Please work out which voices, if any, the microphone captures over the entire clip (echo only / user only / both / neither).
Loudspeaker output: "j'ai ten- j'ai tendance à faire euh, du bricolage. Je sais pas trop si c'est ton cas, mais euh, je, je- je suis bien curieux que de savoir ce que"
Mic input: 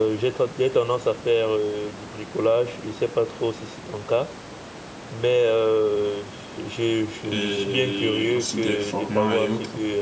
both